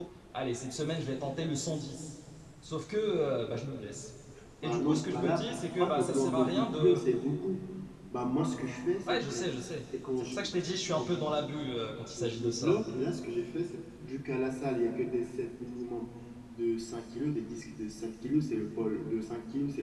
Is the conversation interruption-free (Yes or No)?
No